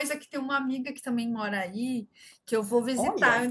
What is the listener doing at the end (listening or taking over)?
listening